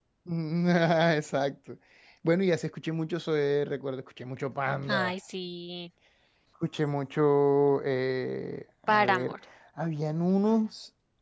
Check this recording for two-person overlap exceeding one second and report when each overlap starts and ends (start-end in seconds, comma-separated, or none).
none